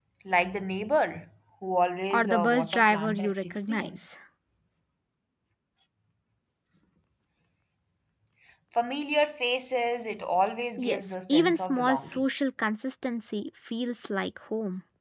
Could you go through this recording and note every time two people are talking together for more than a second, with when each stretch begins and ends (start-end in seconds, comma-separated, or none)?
2.1-4.0, 10.8-12.2